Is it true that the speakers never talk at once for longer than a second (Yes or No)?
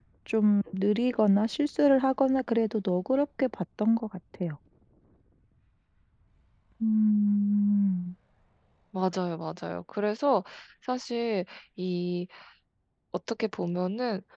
Yes